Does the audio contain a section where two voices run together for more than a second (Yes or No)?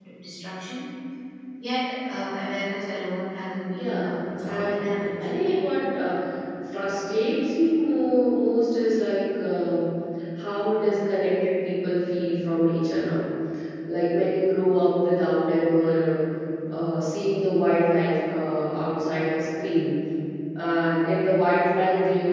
Yes